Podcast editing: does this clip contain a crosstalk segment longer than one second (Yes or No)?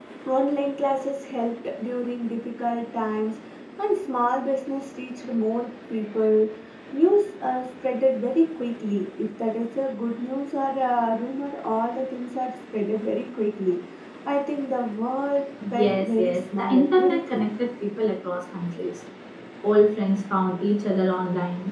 Yes